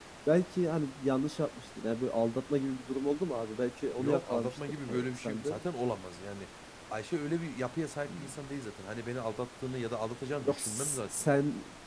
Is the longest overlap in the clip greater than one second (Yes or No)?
Yes